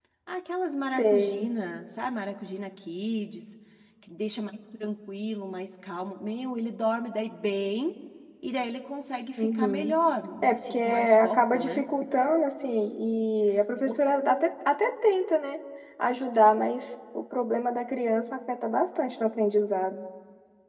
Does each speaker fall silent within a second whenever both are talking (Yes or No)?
No